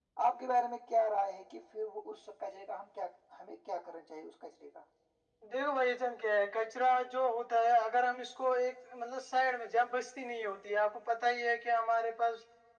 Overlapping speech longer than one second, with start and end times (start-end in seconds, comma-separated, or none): none